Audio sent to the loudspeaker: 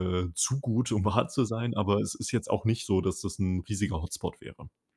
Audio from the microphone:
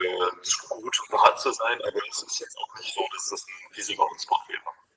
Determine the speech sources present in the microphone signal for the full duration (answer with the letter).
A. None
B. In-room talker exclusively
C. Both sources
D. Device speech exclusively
D